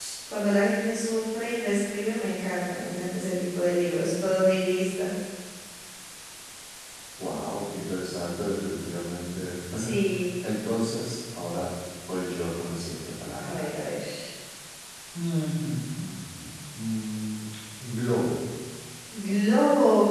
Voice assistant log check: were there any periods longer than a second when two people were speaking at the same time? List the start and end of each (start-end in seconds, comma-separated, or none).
none